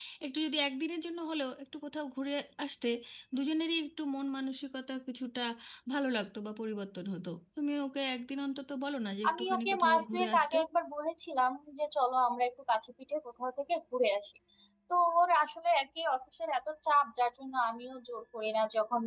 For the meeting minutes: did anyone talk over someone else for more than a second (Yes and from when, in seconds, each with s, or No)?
Yes, from 9.2 s